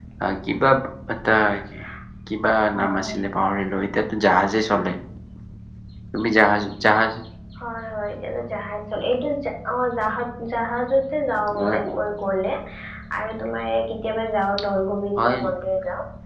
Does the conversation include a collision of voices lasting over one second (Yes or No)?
No